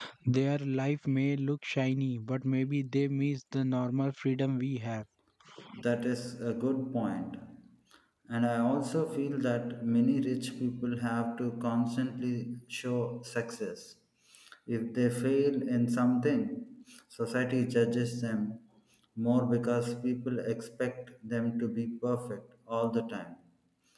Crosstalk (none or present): none